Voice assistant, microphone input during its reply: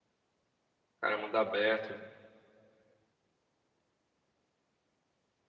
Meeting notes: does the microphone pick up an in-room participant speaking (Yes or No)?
Yes